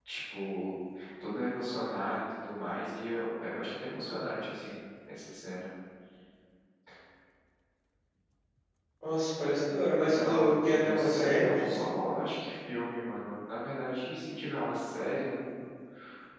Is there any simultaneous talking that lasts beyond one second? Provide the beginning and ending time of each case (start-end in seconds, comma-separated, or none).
10.0-11.9